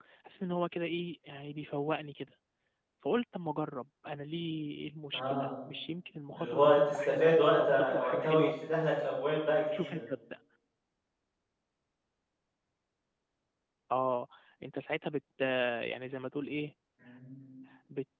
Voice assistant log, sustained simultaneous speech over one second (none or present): present